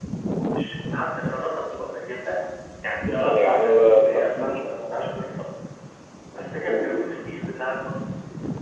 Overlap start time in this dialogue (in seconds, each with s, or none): 3.0 s